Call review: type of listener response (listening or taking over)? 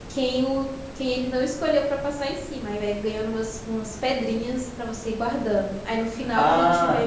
taking over